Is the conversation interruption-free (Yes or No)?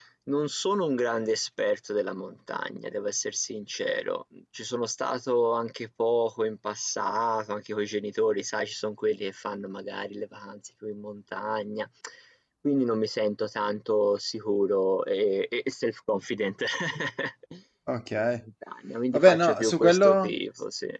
No